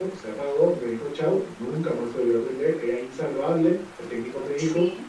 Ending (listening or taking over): listening